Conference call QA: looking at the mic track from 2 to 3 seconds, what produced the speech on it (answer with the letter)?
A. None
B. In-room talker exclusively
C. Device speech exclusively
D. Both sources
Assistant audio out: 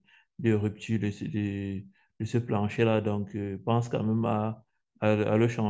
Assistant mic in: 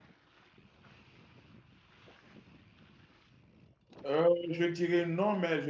A